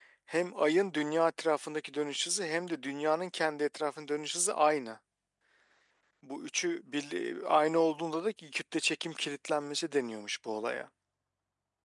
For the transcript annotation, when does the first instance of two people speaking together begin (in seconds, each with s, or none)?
none